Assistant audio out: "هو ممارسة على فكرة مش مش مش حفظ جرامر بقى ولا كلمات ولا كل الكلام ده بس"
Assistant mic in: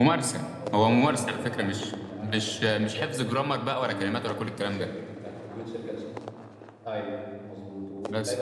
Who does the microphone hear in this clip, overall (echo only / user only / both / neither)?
both